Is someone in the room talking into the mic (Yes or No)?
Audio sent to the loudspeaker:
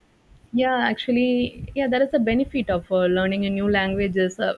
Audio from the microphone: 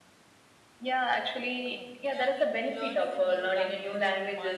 Yes